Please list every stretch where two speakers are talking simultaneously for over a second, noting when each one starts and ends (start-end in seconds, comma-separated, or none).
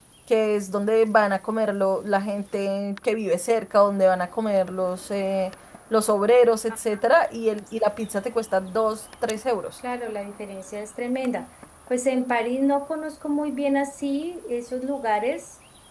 none